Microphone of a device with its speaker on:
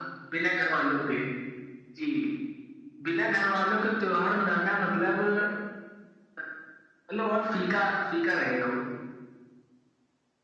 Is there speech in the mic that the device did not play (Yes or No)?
No